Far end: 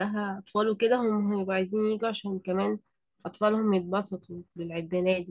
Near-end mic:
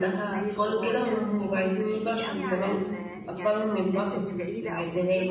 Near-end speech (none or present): present